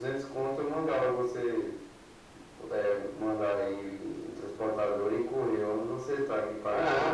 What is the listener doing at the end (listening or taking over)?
taking over